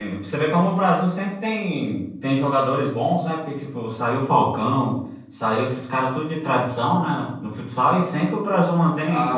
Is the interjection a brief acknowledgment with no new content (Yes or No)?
No